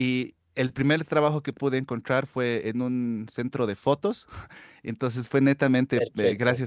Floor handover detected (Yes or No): No